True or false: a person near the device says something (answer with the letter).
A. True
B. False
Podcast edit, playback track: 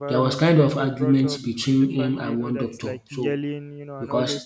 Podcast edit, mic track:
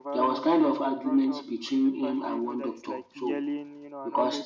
B